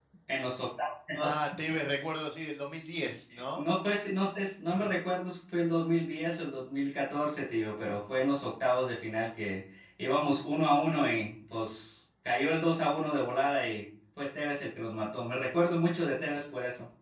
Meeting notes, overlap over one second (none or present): none